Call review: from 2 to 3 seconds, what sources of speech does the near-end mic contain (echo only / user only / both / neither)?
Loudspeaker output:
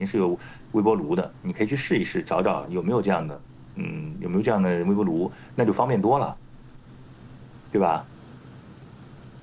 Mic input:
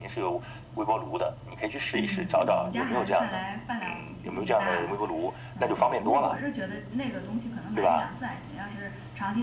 both